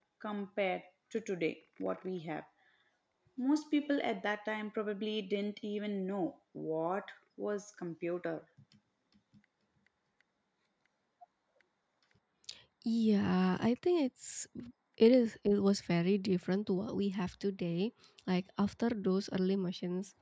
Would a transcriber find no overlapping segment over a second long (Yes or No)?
Yes